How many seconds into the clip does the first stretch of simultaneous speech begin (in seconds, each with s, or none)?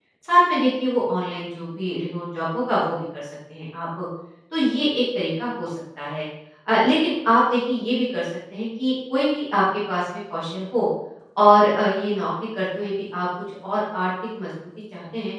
none